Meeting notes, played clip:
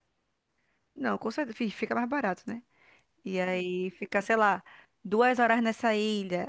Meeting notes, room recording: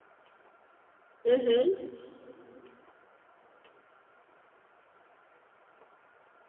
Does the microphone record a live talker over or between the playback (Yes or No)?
Yes